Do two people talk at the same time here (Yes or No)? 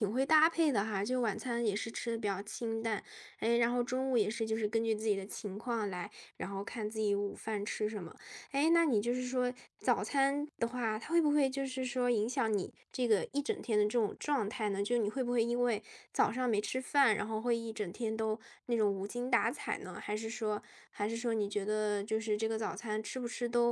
No